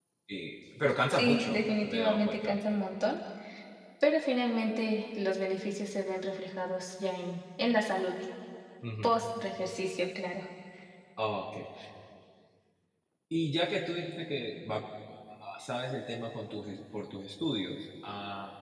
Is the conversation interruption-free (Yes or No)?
No